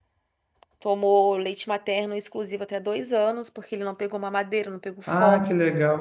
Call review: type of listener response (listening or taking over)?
taking over